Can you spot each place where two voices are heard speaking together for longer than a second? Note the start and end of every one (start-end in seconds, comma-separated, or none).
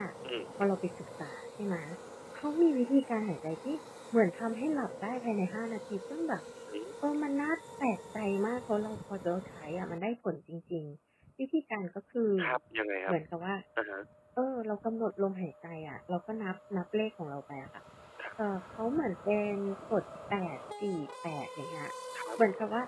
none